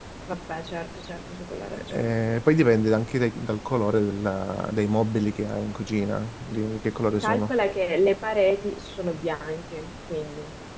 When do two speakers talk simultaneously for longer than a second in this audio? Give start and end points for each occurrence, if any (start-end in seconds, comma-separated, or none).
none